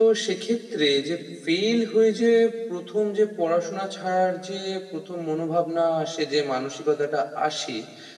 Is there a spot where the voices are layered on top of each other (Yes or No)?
No